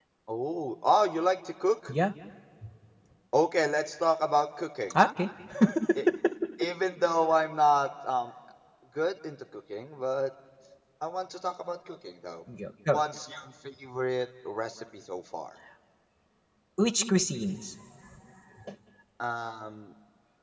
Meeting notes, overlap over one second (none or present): none